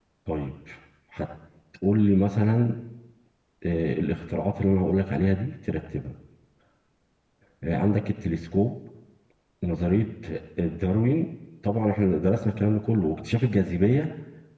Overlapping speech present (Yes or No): No